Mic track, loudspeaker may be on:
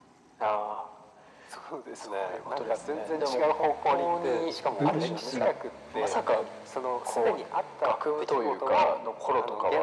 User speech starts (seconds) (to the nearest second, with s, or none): 5 s